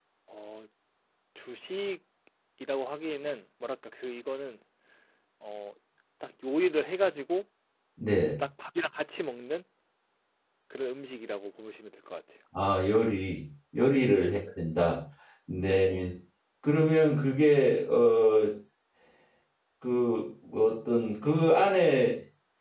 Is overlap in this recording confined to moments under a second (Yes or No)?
Yes